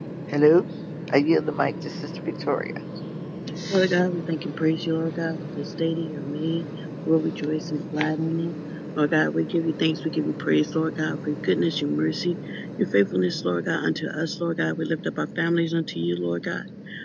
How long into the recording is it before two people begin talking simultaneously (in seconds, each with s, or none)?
none